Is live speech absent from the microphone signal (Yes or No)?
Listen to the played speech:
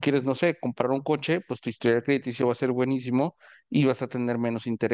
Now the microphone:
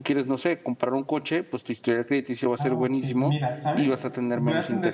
No